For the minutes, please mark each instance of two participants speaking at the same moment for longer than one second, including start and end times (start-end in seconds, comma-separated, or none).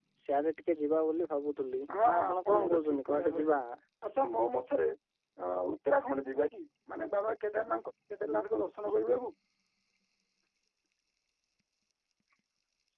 2.0-3.5